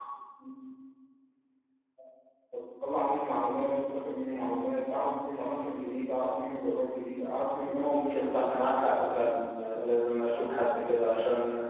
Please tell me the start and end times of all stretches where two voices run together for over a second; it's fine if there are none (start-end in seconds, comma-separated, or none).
7.7-9.4